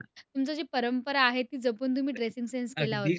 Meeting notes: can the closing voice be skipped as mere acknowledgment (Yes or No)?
No